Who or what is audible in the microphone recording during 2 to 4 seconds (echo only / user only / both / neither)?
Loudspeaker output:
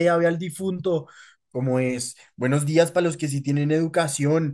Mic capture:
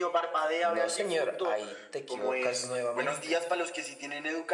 both